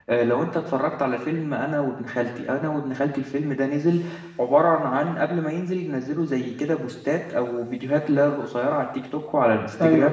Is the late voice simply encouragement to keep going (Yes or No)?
Yes